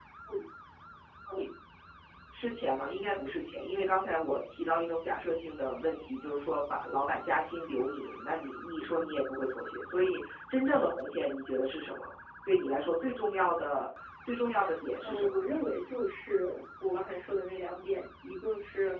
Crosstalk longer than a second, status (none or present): none